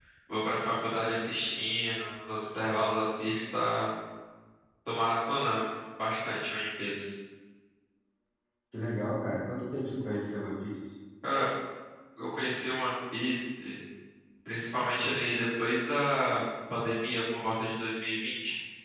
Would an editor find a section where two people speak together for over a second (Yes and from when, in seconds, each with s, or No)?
No